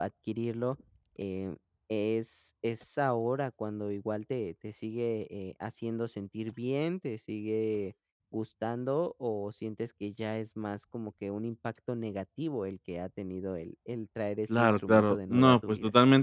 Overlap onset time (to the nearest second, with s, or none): 14 s